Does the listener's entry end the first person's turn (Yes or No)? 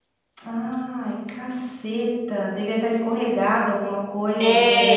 Yes